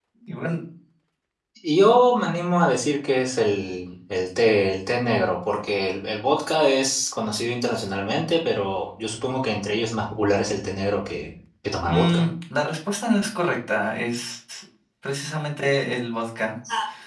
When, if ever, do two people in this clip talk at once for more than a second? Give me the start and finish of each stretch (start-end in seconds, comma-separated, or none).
none